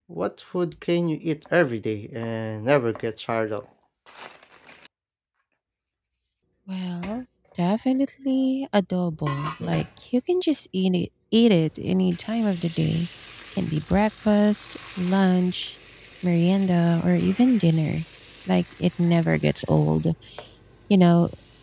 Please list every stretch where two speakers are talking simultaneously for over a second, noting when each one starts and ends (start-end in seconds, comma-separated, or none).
none